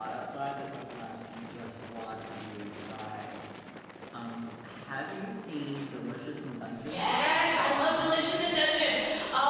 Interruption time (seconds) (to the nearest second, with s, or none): 7 s